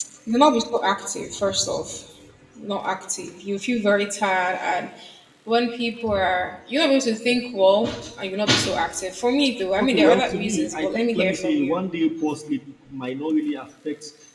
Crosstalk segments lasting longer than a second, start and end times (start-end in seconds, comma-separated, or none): 9.8-11.8